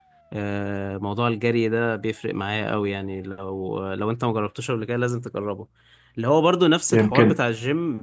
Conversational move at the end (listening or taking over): listening